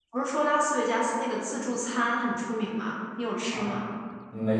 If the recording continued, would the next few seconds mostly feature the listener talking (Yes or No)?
Yes